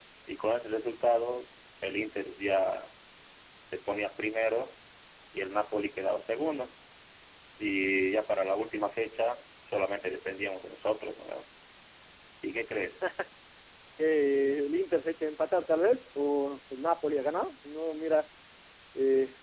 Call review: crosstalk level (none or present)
none